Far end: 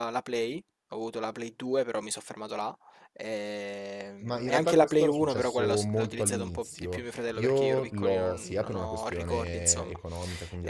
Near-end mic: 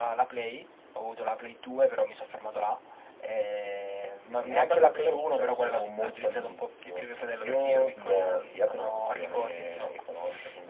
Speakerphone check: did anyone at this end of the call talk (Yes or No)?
No